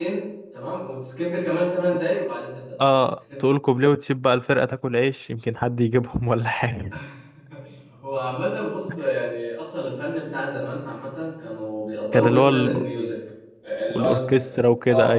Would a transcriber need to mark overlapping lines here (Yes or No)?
Yes